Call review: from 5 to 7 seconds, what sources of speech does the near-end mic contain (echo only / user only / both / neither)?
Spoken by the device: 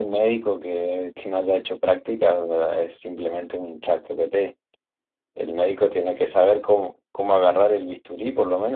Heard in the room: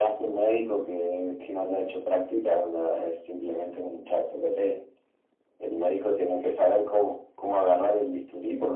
echo only